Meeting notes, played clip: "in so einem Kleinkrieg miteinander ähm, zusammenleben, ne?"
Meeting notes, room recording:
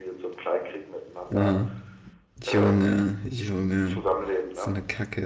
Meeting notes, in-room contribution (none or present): present